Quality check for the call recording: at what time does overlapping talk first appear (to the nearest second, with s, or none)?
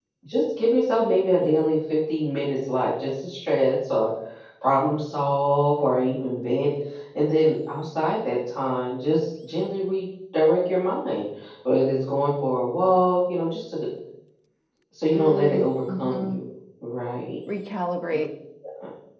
15 s